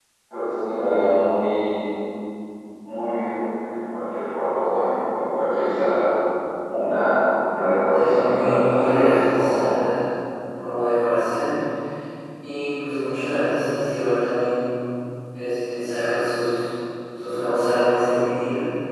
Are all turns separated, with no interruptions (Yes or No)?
No